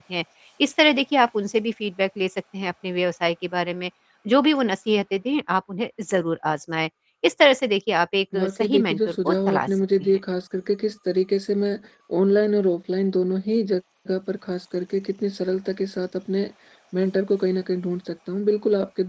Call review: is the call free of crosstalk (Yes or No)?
No